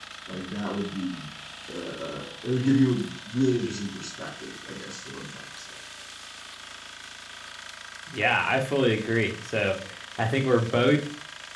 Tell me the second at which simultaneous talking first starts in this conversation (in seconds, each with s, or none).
none